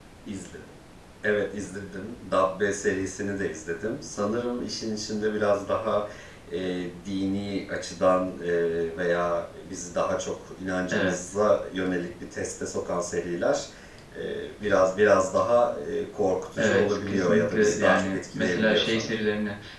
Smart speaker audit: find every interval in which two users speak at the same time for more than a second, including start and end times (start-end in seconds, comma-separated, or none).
16.6-19.2